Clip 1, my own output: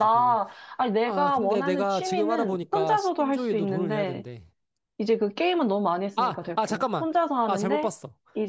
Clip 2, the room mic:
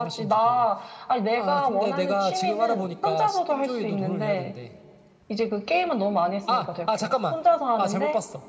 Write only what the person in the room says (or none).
none